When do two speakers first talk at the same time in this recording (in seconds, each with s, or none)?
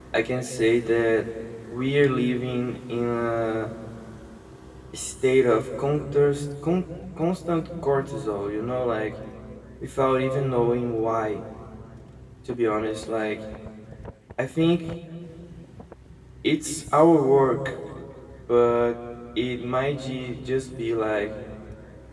none